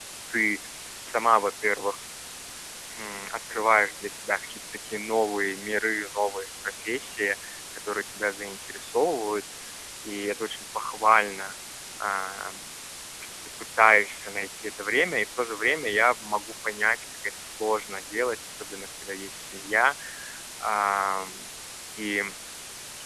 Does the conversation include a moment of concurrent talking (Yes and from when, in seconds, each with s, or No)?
No